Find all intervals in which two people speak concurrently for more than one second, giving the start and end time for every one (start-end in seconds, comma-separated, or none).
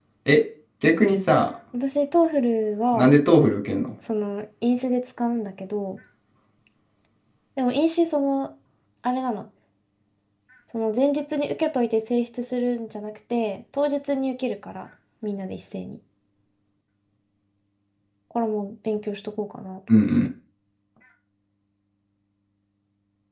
none